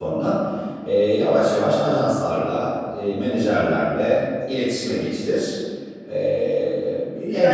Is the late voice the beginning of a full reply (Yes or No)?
Yes